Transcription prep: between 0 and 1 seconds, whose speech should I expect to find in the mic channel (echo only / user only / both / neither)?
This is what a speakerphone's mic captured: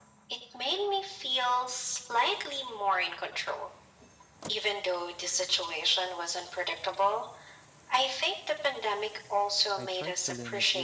echo only